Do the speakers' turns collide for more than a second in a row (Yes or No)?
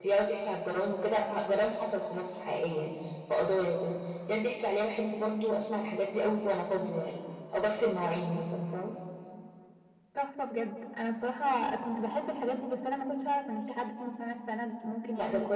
No